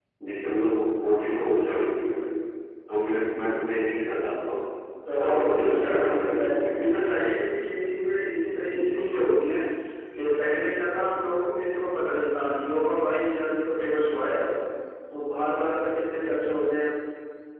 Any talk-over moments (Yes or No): Yes